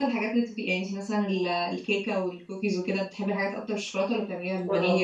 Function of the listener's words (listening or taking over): taking over